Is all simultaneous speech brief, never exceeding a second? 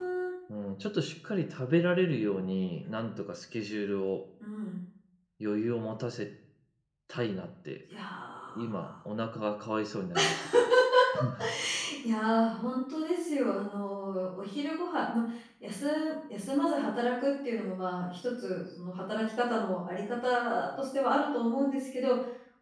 Yes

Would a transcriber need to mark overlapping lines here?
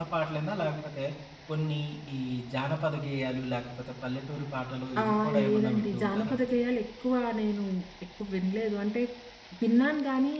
Yes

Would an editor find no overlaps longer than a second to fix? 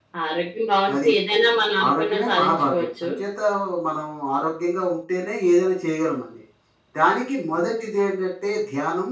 No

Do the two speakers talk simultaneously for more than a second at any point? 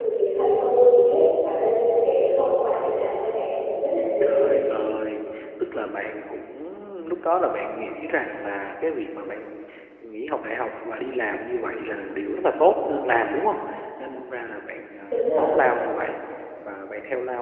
No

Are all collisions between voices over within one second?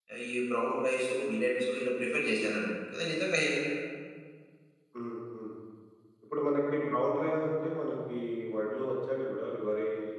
Yes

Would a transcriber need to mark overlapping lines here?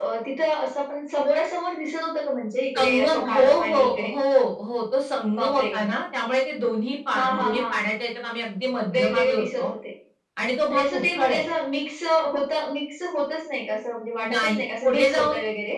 Yes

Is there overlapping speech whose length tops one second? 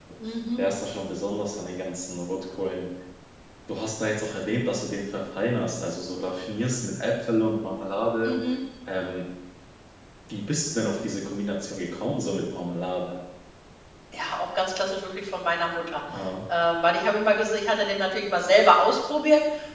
No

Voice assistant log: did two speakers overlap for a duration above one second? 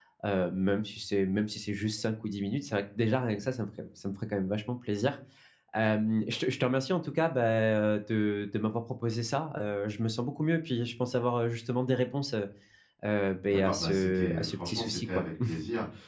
Yes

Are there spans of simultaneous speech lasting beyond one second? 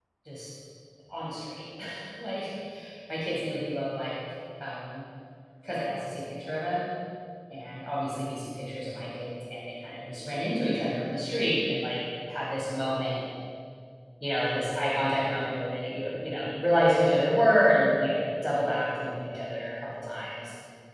No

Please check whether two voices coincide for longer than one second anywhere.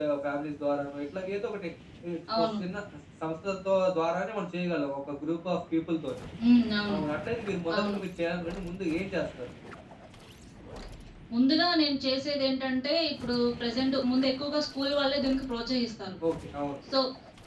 No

